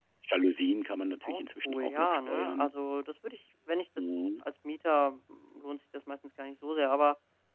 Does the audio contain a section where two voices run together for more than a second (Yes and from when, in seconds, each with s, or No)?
Yes, from 1.2 s